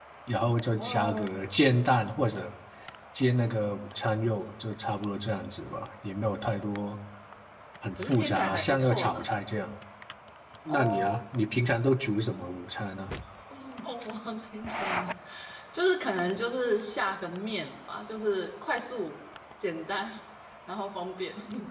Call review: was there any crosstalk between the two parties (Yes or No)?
Yes